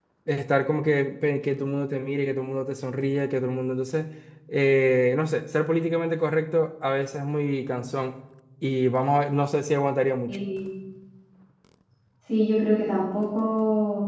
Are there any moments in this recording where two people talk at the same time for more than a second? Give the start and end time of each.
none

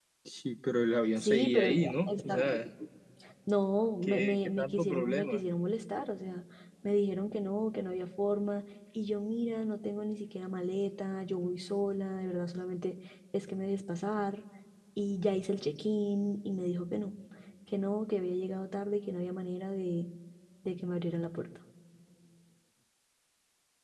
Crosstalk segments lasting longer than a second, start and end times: 1.2-2.6, 4.0-5.4

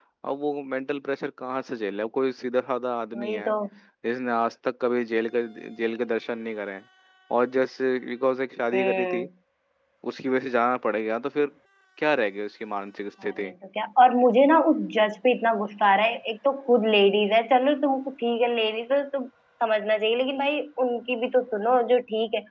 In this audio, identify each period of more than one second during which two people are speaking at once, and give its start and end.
none

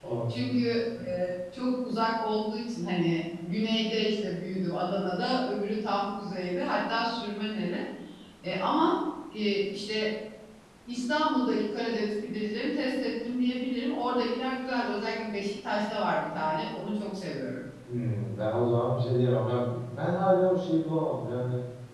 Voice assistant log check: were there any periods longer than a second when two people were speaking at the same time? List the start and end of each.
none

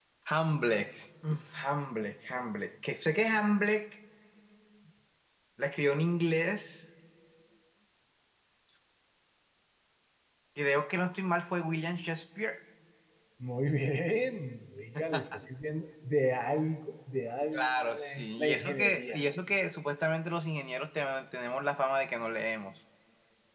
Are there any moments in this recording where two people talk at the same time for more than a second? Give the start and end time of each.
17.5-19.2

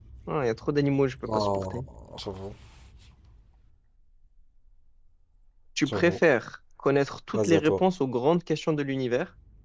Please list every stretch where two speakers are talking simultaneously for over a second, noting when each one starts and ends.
none

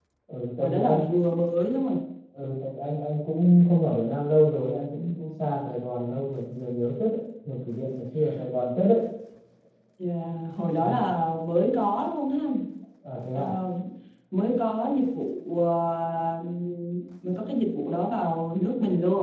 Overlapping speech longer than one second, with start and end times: none

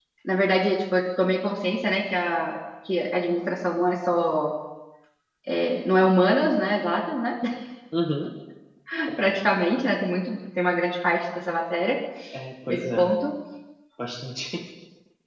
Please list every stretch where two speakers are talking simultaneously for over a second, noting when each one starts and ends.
none

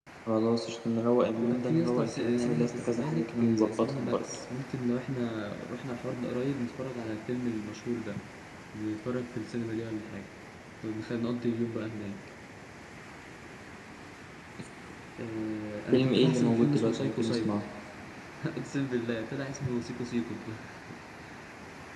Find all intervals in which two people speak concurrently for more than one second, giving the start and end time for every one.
1.4-4.2, 15.9-17.6

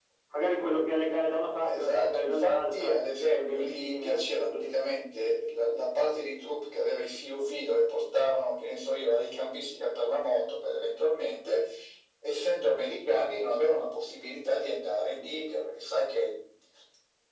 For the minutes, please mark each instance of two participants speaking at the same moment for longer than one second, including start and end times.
1.6-5.0

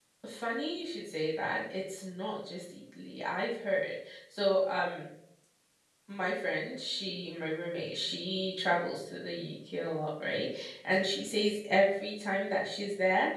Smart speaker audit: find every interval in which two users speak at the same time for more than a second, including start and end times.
none

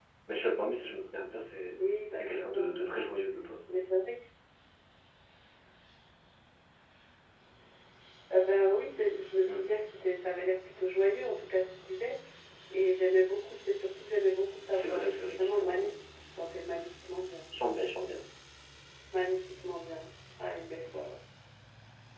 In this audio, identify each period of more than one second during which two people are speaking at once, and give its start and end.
1.8-3.1, 14.7-16.0

